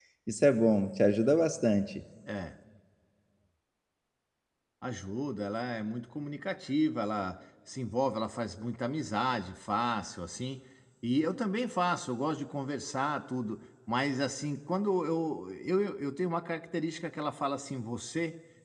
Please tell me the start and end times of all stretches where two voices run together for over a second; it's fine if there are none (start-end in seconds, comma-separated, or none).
none